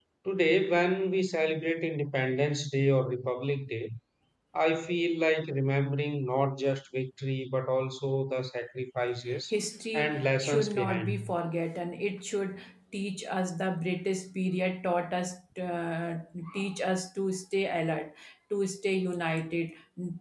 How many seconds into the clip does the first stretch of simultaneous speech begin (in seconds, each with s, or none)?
9.9 s